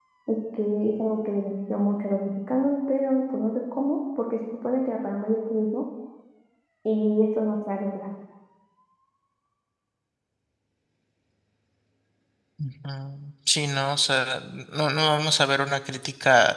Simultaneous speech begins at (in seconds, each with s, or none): none